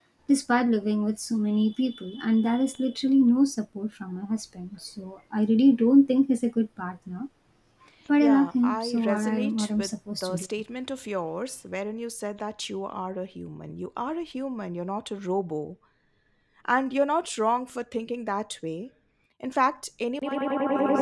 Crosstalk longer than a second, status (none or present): present